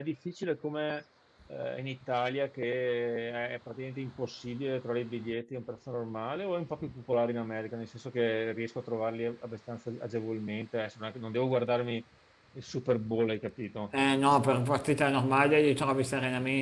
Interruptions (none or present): none